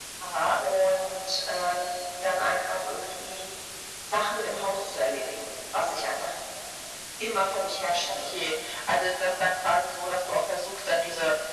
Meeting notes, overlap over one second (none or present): none